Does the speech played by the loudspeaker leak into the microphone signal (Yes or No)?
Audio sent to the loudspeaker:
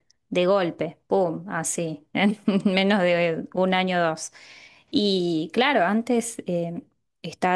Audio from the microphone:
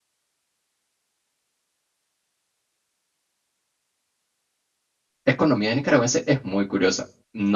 No